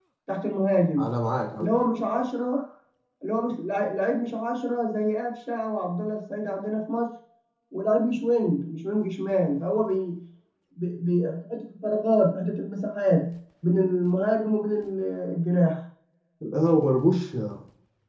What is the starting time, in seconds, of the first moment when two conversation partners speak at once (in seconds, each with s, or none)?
none